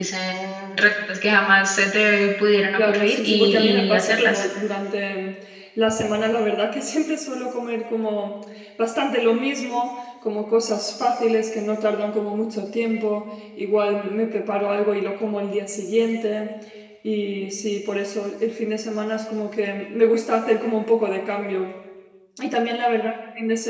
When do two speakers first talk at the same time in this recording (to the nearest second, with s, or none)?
3 s